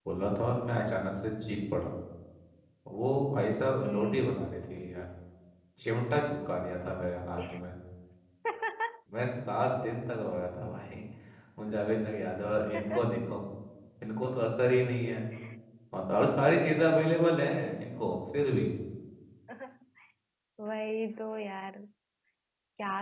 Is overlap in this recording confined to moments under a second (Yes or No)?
Yes